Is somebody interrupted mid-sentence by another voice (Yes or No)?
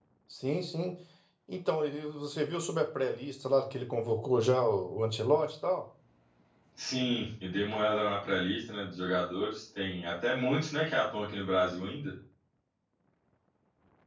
No